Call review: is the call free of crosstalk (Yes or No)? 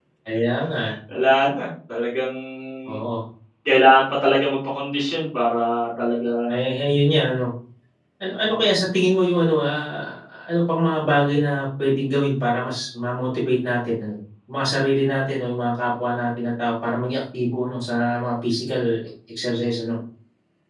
Yes